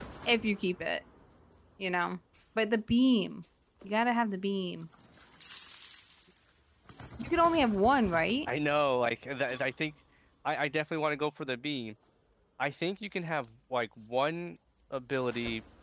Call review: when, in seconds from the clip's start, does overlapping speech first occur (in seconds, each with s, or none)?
none